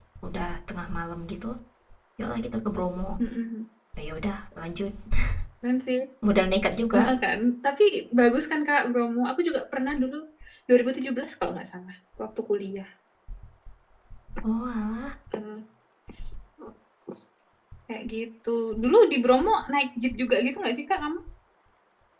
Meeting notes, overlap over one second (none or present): none